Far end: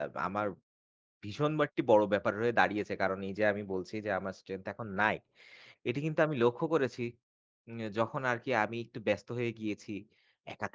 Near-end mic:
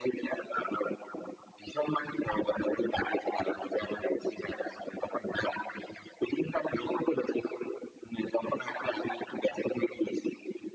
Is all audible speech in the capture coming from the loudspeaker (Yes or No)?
Yes